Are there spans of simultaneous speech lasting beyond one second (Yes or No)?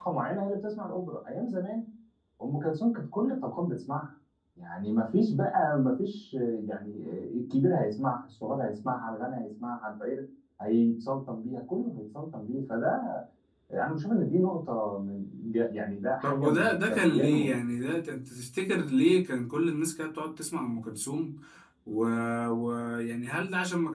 Yes